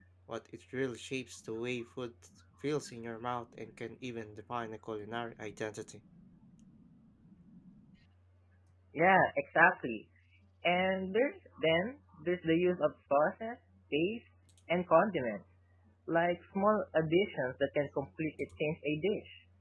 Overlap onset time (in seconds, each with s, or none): none